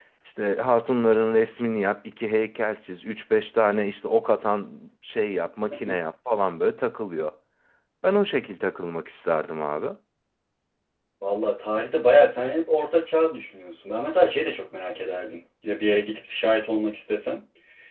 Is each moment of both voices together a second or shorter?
Yes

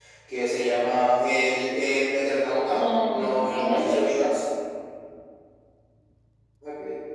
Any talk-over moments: Yes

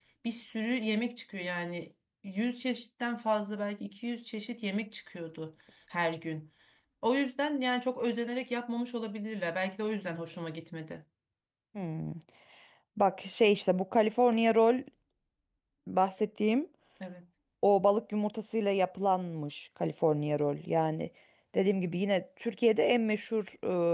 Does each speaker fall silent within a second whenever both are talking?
Yes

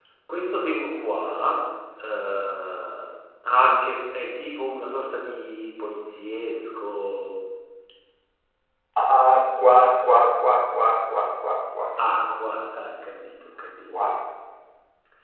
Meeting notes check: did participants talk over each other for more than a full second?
No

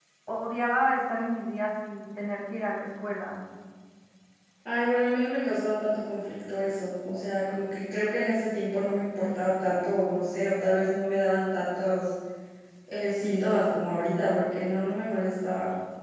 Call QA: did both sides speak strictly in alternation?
Yes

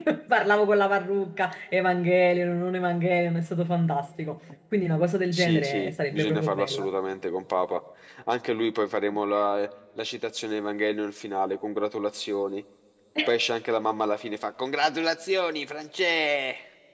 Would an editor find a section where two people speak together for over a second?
Yes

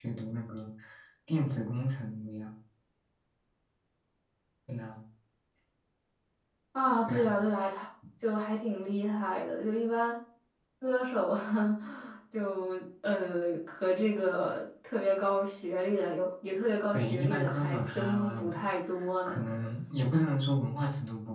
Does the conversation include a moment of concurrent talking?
Yes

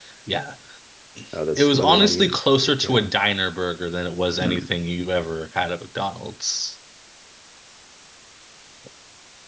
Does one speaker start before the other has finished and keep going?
Yes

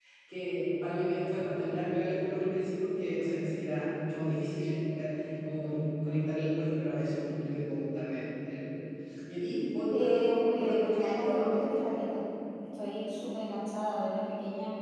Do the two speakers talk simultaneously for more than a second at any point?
Yes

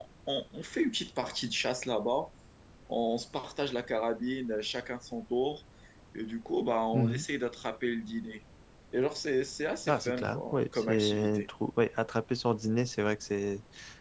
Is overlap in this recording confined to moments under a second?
No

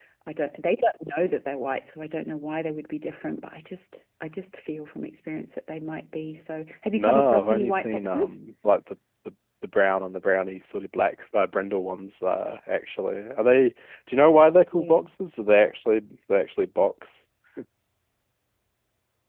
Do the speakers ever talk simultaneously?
Yes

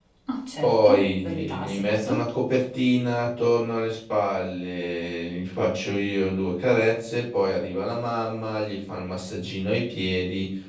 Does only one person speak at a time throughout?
No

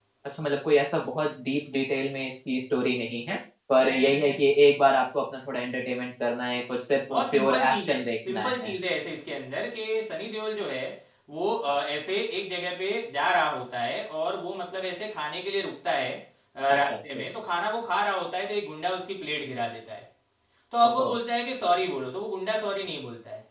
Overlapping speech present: Yes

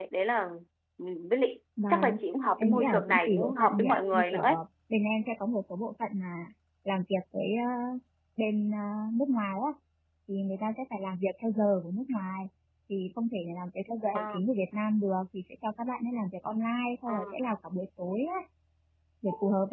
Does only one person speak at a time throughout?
No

